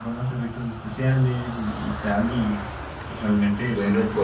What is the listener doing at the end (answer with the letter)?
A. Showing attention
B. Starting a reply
B